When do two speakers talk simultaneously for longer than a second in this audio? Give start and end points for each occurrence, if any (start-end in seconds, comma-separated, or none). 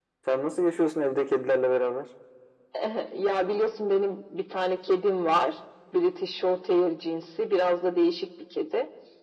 none